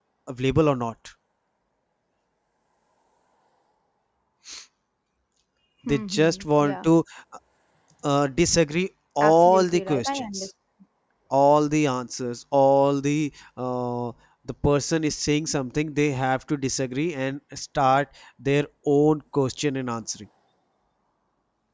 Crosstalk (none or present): present